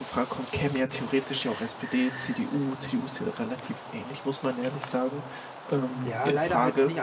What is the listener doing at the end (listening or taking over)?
taking over